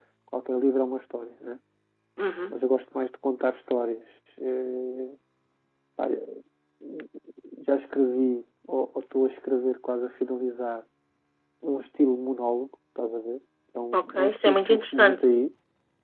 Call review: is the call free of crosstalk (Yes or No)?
No